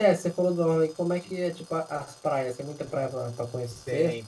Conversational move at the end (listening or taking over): taking over